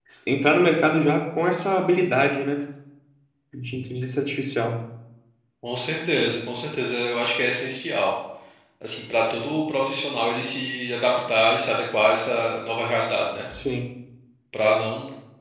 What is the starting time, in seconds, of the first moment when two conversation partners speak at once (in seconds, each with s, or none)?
none